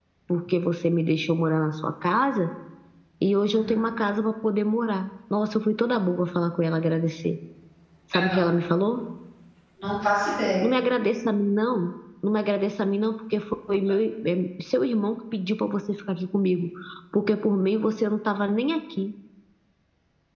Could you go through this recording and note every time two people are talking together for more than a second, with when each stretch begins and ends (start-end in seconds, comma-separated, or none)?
none